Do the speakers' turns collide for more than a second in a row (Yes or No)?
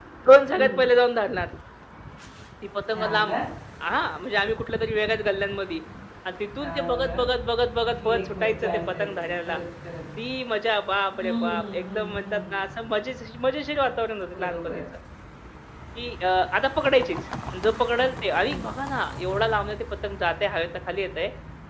Yes